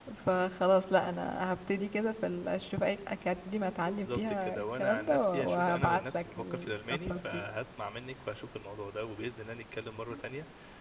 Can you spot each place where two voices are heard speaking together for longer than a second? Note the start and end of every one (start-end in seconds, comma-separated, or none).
3.8-7.4